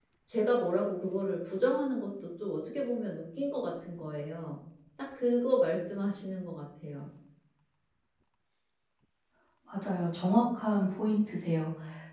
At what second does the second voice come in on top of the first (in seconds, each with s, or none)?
none